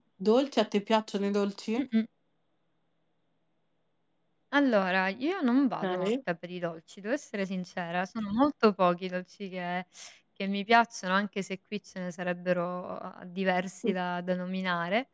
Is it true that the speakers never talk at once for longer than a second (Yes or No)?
Yes